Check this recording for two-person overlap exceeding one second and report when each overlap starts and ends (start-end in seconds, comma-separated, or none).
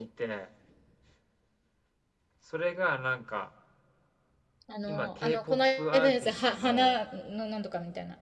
4.9-7.0